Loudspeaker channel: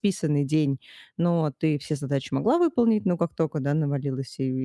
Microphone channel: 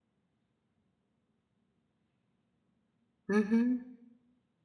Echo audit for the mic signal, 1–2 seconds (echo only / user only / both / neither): neither